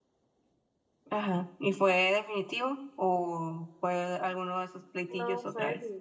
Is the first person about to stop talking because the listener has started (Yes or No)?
Yes